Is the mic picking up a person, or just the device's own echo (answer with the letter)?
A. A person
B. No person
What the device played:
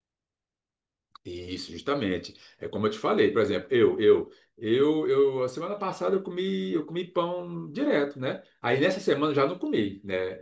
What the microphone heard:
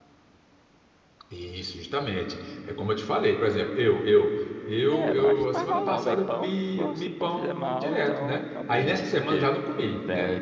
A